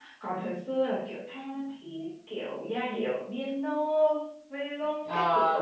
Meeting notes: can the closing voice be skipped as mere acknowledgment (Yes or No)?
No